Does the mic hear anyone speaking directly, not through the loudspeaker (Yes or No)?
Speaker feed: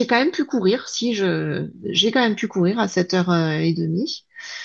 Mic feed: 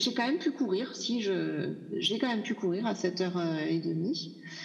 No